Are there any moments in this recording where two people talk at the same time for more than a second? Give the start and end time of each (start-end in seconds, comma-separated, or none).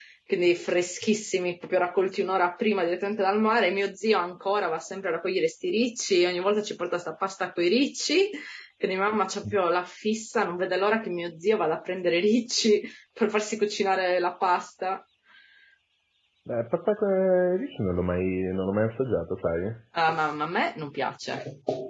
none